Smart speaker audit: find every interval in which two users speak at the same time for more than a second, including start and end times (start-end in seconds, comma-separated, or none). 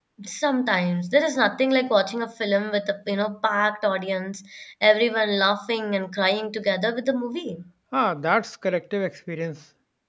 none